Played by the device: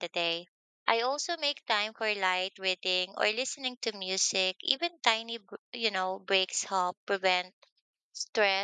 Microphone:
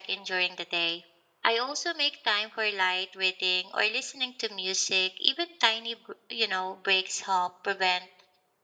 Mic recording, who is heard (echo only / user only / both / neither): echo only